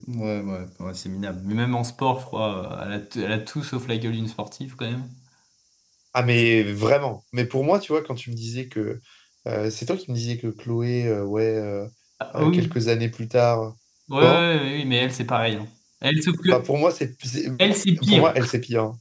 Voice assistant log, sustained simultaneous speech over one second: none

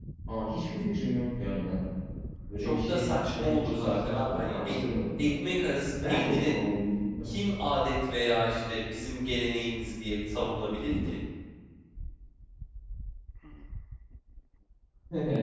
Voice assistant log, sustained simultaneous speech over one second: present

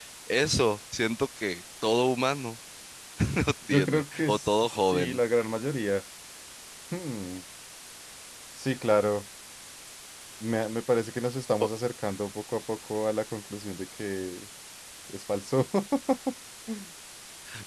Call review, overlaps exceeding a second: present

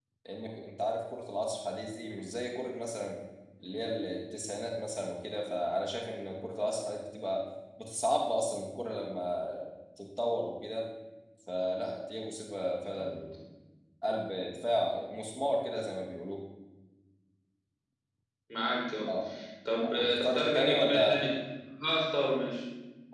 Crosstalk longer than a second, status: present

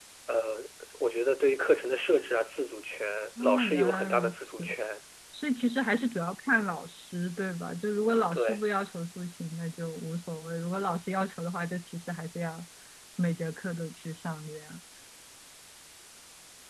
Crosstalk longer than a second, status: present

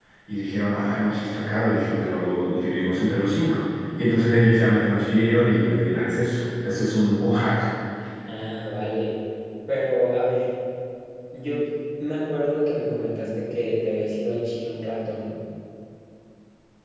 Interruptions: none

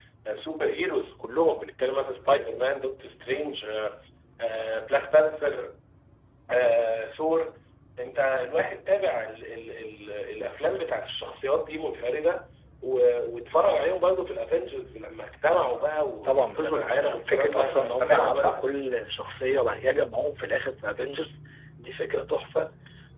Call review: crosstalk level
present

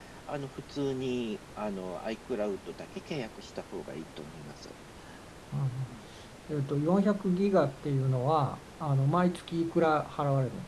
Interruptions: none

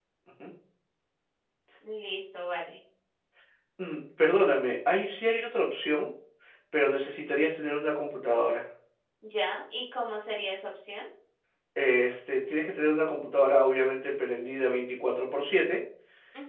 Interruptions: none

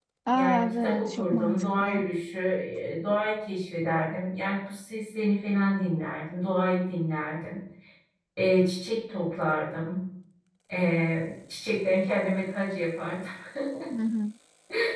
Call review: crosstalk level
present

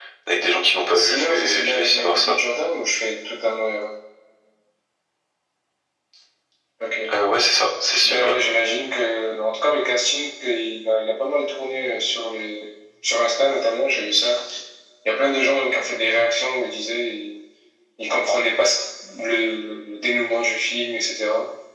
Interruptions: present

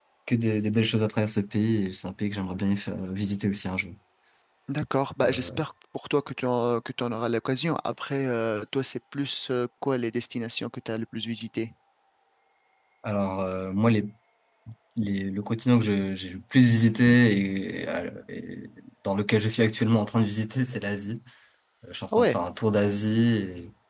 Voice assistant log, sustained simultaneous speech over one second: none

